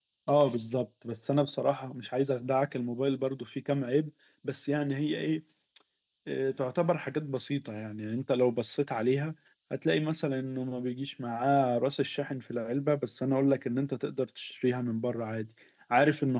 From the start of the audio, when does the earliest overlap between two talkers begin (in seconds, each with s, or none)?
none